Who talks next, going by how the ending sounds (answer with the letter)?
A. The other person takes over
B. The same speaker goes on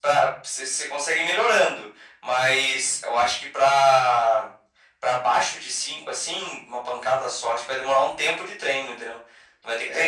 B